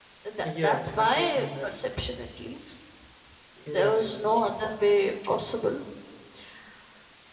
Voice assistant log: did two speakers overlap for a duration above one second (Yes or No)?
Yes